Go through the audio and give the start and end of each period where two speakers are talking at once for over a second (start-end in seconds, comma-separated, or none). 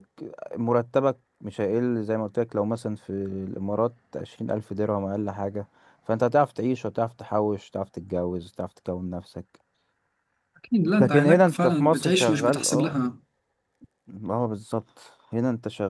11.0-12.9